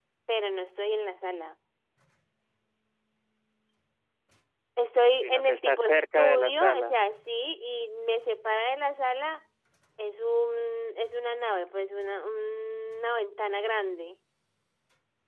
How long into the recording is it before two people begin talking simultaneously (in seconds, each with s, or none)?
5.2 s